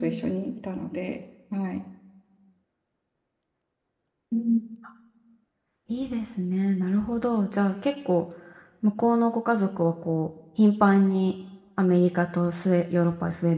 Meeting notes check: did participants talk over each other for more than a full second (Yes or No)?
No